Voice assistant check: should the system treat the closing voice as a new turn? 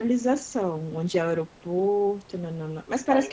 Yes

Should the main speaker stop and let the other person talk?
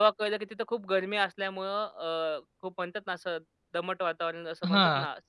Yes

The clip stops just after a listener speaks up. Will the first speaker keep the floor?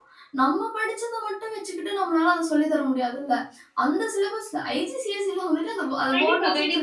No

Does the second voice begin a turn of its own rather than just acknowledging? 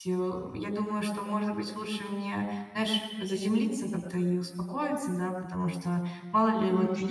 No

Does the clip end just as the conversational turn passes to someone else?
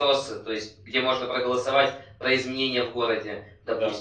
No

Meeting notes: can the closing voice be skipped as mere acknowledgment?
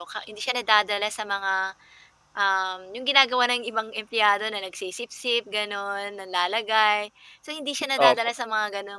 Yes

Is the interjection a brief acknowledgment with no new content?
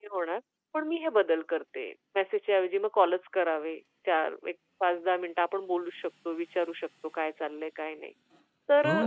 No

